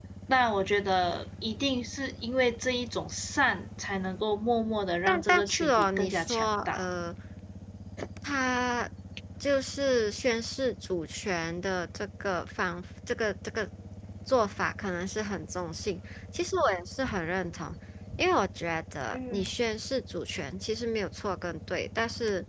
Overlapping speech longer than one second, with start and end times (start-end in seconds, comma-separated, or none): 5.1-6.8